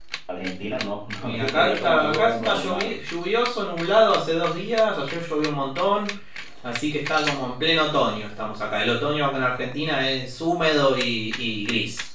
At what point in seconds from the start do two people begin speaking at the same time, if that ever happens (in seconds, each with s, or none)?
1.2 s